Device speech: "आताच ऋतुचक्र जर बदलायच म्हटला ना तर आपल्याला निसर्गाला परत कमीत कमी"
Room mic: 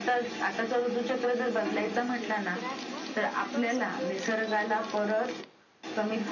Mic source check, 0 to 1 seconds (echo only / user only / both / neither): echo only